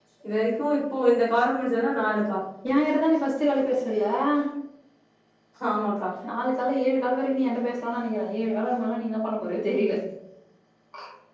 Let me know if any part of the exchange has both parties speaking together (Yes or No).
No